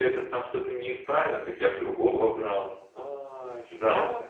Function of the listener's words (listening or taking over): taking over